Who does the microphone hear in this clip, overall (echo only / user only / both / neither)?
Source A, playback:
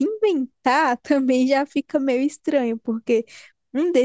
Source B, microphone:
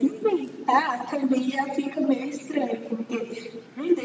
echo only